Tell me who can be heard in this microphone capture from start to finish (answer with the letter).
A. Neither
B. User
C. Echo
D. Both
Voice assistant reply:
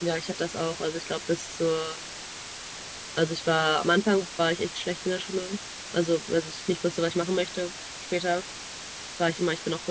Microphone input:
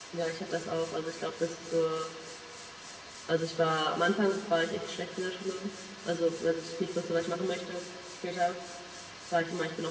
C